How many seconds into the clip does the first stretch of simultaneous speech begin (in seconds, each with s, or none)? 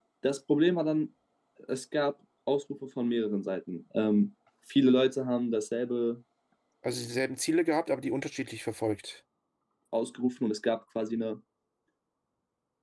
none